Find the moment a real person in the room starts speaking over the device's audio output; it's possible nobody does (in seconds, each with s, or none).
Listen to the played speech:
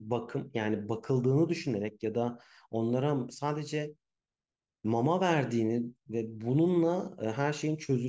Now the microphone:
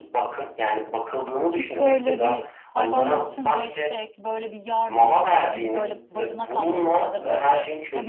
1.6 s